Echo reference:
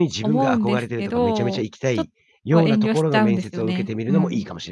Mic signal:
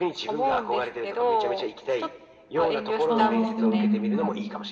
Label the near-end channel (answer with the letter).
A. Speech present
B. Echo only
A